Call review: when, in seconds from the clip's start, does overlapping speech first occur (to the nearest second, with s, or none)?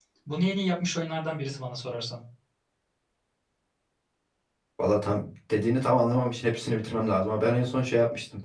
none